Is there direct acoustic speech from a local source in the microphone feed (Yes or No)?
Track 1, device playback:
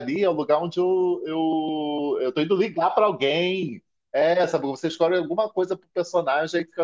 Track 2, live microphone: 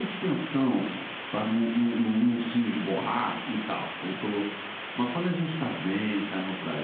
Yes